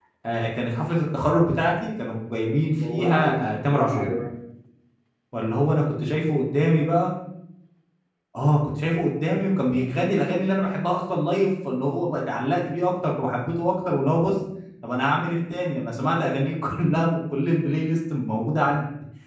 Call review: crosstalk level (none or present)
present